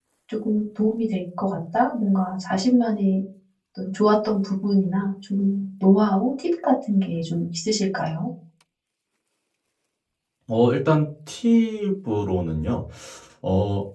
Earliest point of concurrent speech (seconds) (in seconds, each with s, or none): none